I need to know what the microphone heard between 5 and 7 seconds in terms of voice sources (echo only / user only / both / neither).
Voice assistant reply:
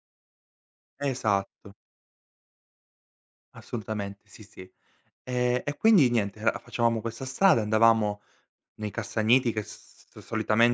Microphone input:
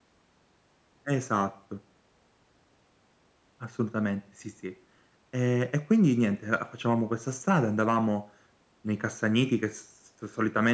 echo only